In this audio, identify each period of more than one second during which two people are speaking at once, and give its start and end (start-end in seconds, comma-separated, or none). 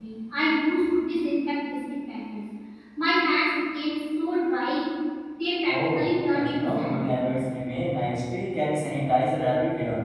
5.7-7.3